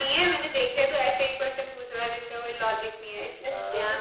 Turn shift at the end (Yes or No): Yes